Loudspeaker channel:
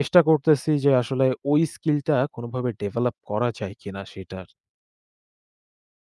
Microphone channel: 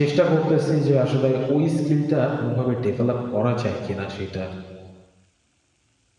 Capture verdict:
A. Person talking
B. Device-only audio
B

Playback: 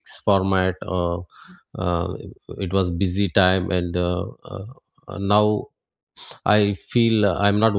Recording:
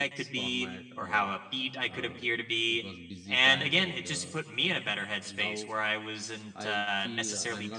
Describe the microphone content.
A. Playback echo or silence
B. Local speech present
B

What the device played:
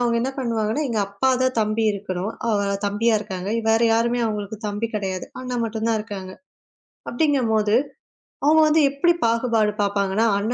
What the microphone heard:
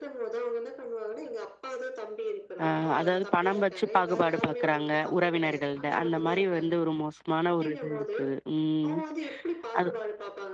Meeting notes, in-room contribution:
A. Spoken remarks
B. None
A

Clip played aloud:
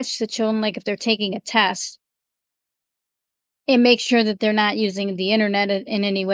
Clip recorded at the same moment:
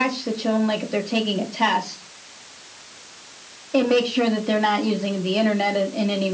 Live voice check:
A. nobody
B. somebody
A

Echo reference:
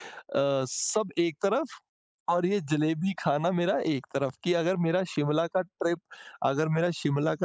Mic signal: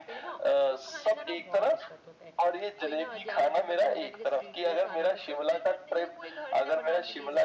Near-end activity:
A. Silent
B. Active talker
B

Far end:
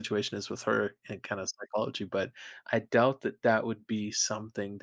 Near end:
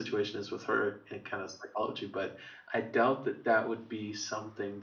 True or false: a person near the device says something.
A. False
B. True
A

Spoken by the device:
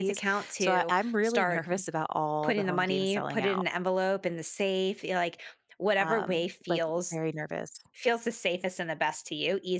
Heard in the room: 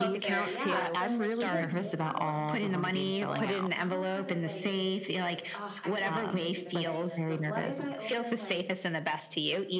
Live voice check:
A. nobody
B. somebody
B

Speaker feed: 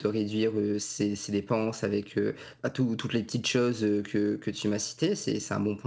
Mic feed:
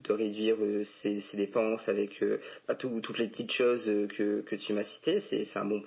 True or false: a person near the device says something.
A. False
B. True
A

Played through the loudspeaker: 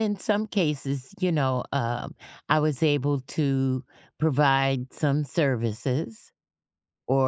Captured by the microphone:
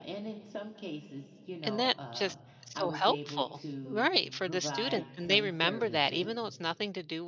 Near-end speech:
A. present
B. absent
A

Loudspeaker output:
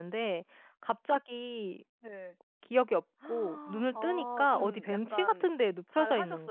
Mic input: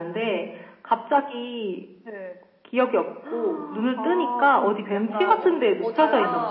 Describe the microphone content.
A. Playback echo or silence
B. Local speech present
B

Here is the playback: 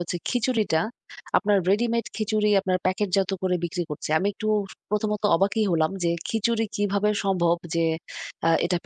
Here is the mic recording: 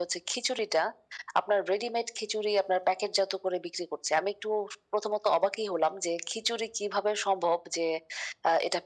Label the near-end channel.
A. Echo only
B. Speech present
A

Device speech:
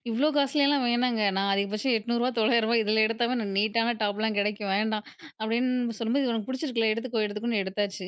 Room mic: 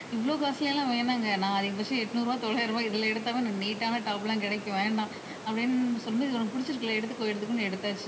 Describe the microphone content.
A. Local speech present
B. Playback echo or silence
B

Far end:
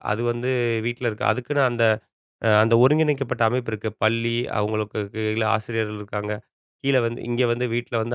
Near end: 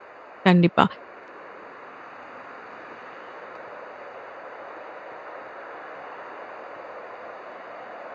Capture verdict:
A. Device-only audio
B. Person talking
B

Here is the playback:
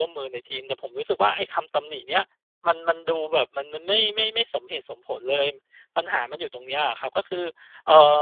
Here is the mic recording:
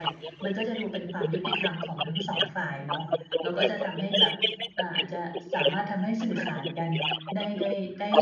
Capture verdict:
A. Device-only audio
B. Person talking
B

